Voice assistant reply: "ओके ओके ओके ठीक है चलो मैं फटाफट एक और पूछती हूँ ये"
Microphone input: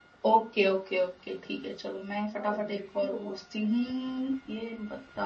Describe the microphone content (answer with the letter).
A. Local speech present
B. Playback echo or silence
A